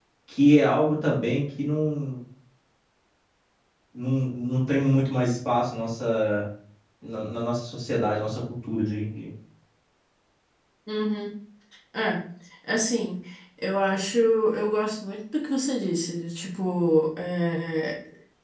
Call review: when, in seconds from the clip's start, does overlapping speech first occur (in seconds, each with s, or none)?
none